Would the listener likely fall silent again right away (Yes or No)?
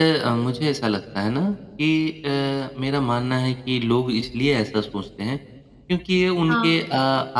Yes